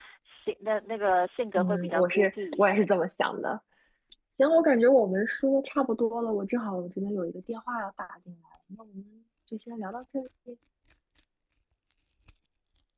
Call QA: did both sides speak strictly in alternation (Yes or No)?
No